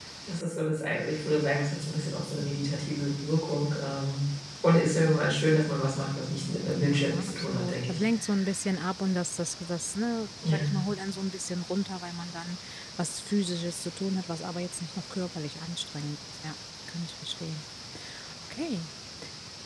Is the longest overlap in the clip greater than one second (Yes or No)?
Yes